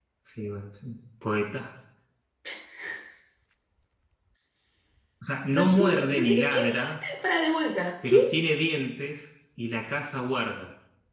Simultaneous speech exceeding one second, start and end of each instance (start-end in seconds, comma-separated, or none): 5.5-6.9